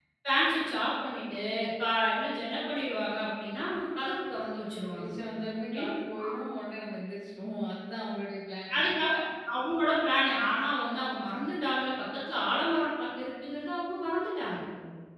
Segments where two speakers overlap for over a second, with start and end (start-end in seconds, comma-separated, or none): none